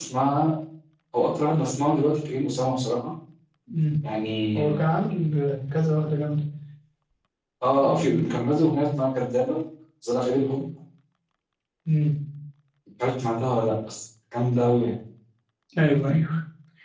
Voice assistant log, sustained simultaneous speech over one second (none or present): none